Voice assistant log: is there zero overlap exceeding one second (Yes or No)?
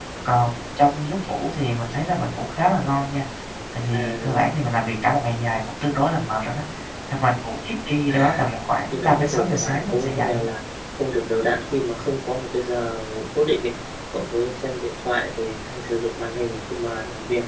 No